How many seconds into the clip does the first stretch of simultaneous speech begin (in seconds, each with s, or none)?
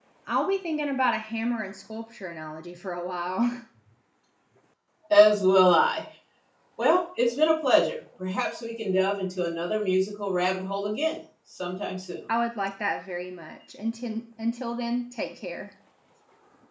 none